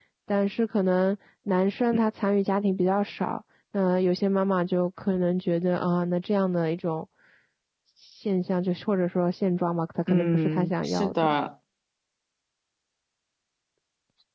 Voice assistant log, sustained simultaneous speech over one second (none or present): present